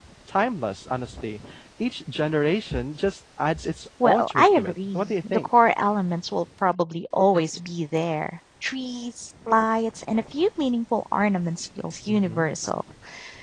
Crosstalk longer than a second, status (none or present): present